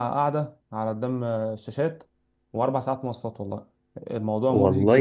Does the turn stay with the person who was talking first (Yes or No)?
No